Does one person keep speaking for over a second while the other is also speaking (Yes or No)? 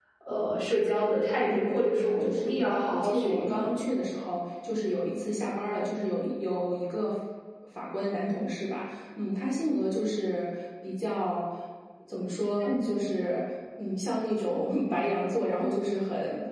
Yes